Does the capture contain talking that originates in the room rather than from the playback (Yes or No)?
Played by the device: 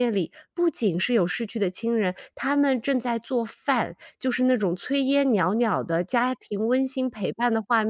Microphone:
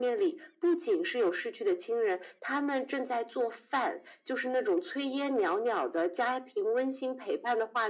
No